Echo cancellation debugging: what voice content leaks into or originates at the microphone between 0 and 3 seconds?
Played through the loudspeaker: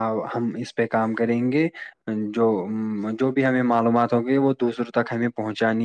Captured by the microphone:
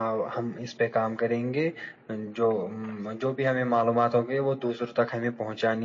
echo only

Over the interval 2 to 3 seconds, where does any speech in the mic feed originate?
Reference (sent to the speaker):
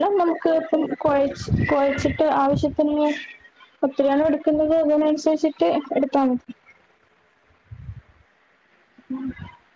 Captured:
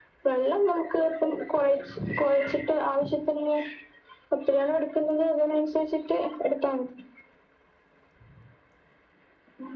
echo only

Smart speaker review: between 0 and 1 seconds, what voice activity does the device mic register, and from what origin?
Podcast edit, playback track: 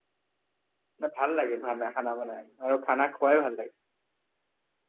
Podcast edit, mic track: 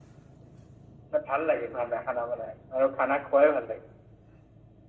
neither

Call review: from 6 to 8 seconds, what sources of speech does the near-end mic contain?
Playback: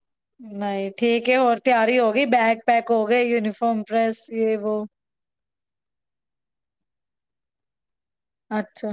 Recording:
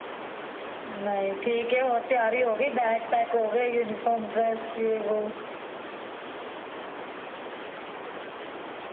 neither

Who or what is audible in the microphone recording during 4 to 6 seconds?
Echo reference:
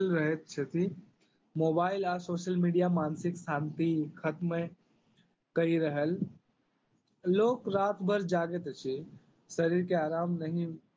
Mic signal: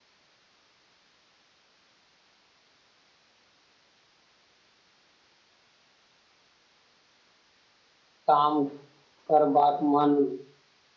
neither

